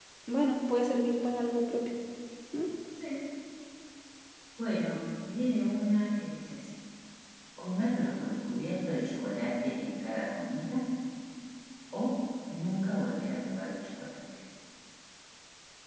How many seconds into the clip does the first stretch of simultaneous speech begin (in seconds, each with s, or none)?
none